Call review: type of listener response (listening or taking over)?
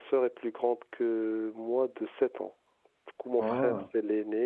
listening